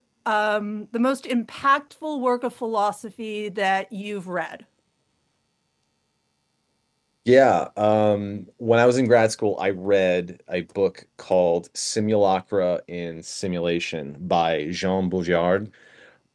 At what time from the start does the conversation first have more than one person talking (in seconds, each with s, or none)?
none